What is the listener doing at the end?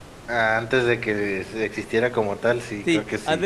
taking over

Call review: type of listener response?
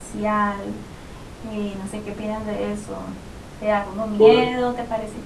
listening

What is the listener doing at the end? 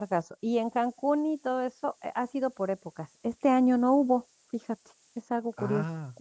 listening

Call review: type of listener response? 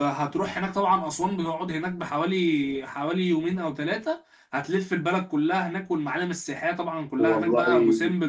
listening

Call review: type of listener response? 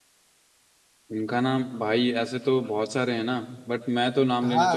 taking over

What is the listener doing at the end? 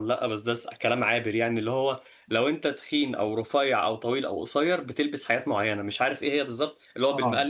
listening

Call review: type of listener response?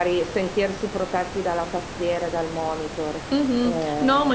taking over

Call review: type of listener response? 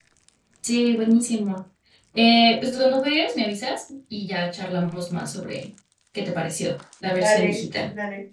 taking over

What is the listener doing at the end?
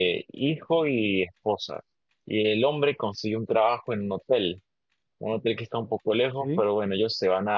listening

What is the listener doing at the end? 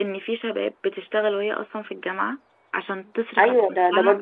taking over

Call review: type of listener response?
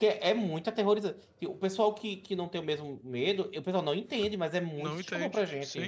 taking over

